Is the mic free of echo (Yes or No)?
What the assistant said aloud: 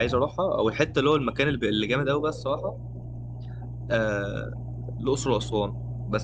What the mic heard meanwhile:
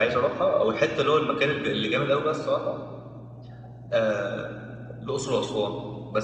No